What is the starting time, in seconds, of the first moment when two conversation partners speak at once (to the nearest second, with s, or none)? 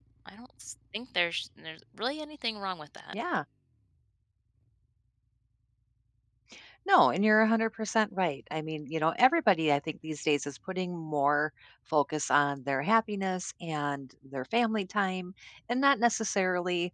none